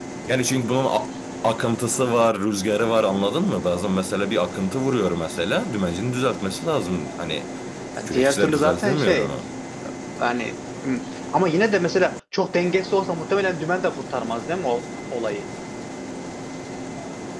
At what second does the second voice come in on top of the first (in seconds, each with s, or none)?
8.0 s